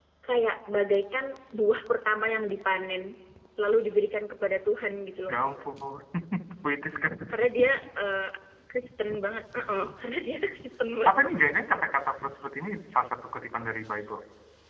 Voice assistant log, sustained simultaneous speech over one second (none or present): none